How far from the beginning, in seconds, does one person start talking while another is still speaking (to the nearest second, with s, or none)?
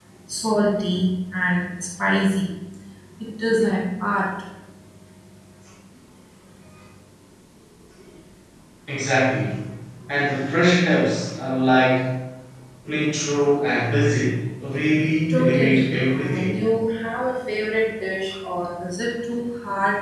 15 s